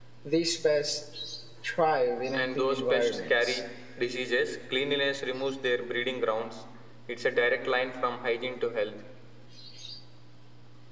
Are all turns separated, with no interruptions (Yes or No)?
No